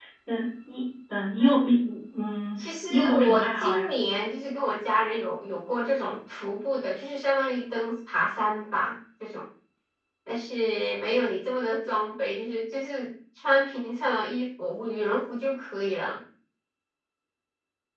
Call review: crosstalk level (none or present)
present